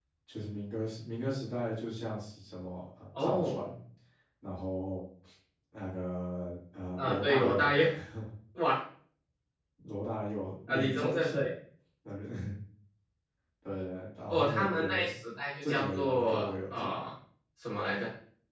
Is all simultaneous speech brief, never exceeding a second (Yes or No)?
No